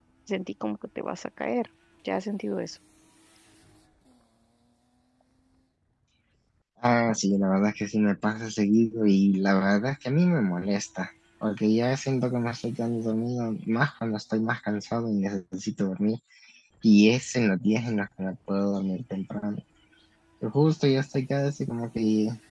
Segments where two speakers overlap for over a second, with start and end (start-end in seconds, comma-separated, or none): none